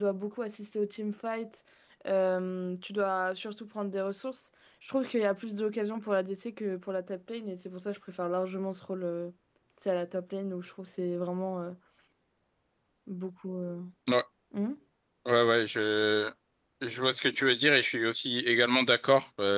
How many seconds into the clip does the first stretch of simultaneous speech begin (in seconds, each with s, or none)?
none